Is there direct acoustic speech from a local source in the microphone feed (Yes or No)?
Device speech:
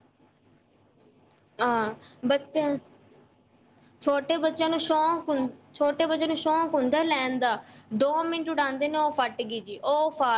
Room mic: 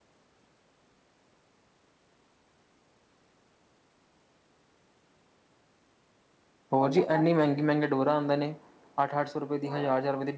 Yes